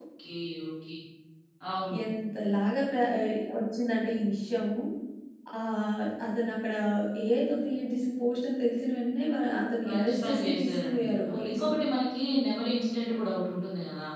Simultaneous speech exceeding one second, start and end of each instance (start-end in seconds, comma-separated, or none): 9.8-11.8